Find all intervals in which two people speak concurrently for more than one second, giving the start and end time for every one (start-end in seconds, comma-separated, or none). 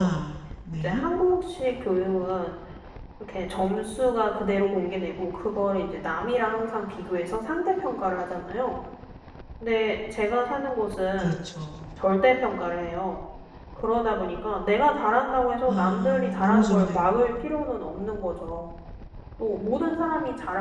15.7-17.4